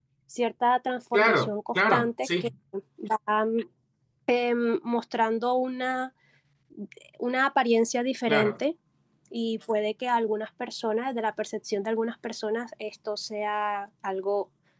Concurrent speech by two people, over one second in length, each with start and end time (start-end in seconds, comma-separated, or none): 1.1-2.5